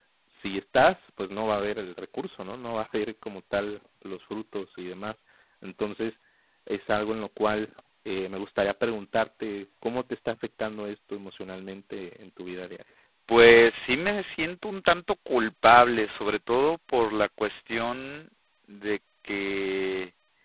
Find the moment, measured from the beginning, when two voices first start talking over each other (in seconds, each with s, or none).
none